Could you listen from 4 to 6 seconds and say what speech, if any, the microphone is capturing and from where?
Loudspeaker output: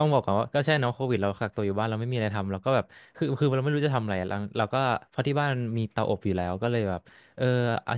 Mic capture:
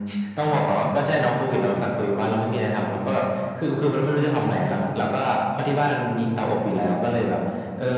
echo only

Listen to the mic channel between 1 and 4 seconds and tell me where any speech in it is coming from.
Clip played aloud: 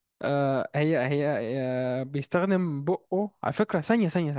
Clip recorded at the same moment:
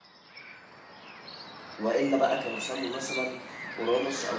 user only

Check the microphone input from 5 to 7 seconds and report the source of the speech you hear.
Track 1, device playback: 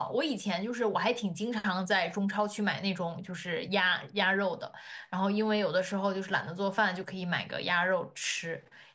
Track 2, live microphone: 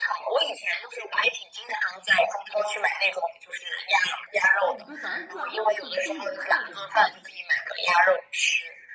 both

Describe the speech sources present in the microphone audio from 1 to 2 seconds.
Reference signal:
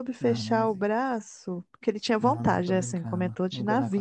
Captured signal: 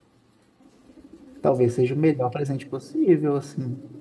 user only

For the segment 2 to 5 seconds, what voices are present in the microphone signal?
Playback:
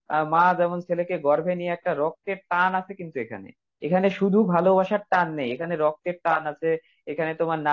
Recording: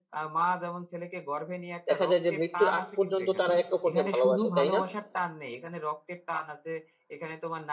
both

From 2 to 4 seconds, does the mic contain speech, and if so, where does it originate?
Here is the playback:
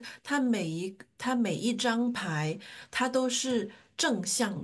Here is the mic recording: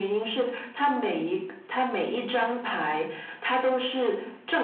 echo only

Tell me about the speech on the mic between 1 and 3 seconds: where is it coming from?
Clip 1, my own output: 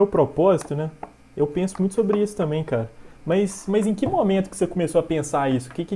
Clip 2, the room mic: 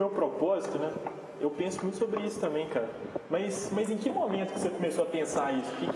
echo only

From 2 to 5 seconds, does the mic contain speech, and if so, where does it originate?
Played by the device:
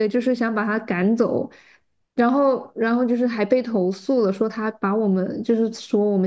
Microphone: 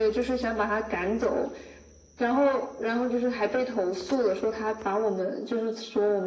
echo only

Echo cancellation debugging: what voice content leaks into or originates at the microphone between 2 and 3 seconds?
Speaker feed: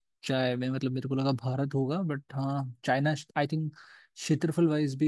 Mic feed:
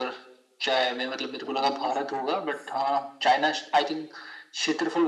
both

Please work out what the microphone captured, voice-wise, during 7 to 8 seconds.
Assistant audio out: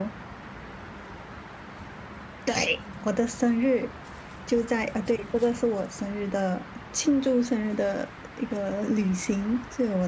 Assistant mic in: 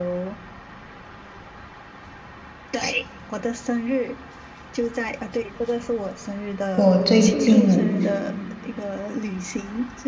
both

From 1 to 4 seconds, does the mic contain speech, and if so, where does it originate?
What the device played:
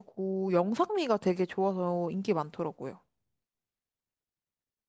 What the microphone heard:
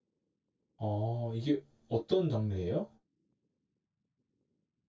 user only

